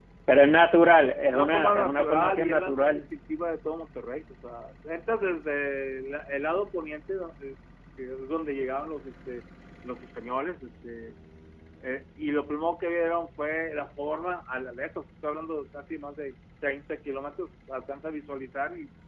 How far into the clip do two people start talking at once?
1.2 s

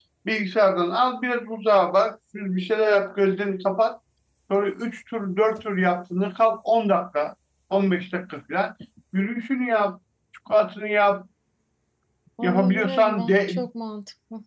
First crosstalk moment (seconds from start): 12.4 s

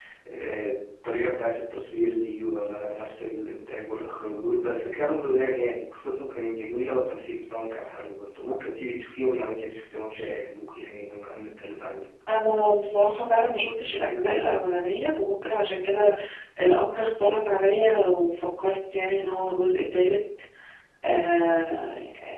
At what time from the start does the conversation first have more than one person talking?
none

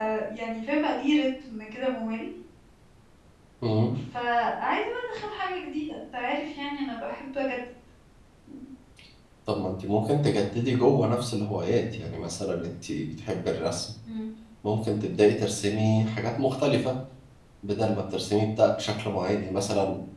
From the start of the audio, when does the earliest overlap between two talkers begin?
none

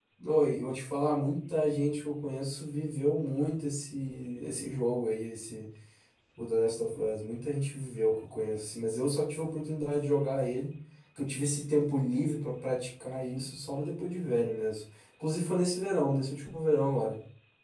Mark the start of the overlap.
none

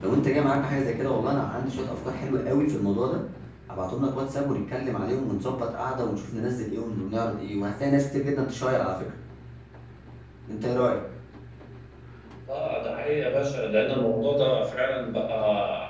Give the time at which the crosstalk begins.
none

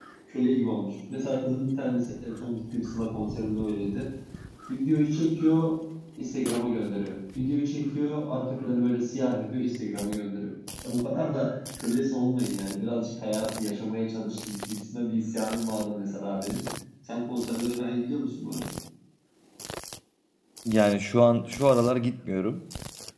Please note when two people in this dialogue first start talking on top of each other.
none

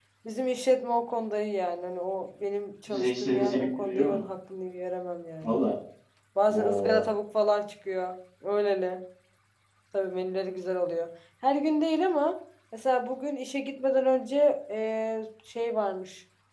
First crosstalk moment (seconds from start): 2.9 s

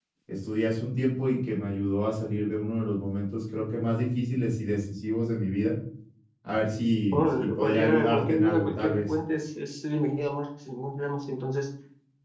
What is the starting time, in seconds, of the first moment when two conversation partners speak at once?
7.1 s

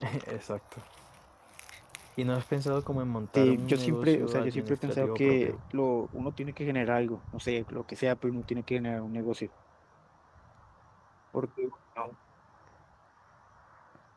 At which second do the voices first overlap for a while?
3.4 s

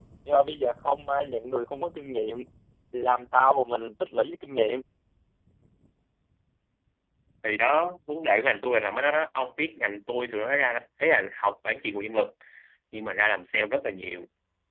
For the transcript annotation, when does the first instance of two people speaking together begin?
none

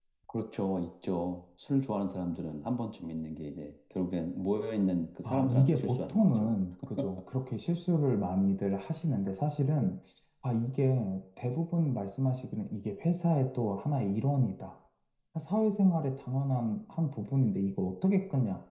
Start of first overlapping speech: 5.2 s

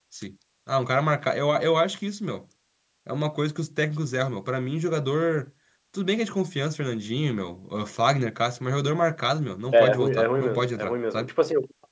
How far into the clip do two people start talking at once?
9.7 s

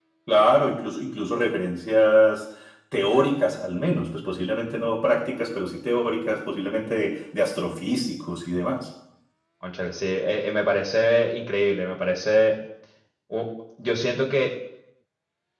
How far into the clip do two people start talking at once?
none

